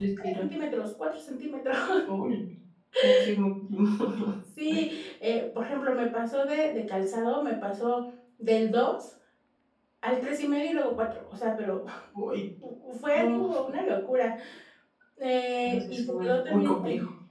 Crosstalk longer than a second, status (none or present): present